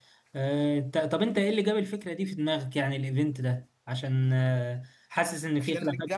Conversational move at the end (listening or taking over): taking over